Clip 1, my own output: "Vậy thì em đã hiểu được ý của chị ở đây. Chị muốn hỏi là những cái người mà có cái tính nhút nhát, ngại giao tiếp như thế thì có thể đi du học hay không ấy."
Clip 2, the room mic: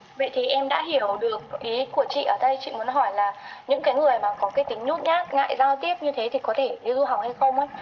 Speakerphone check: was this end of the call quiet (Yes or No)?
Yes